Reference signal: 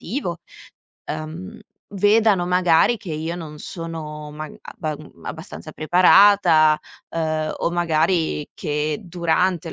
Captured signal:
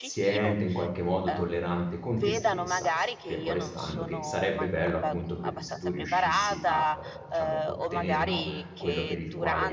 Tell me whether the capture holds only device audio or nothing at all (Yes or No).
No